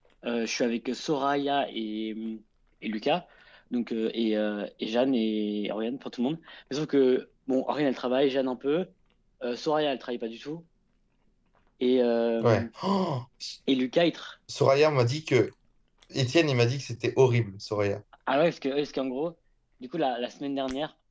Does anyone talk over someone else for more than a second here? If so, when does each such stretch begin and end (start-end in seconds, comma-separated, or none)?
none